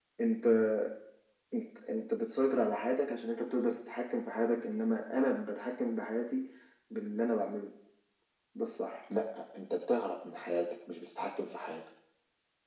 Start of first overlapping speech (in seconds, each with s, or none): none